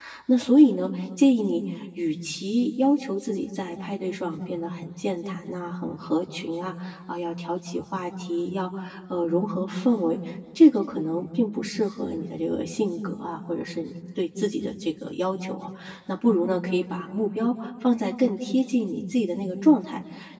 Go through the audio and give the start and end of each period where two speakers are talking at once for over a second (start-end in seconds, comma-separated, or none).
none